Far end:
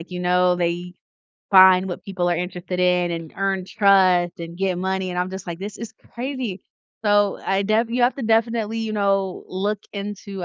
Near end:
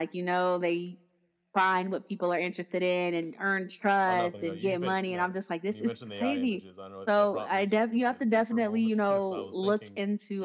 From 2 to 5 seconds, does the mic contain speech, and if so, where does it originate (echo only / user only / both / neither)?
both